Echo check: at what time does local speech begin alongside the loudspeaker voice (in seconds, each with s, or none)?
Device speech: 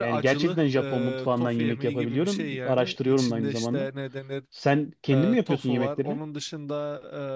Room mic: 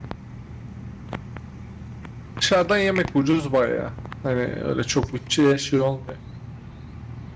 2.4 s